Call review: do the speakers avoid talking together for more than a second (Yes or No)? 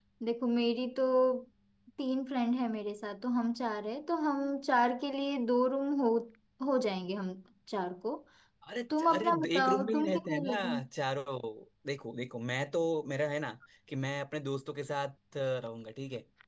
No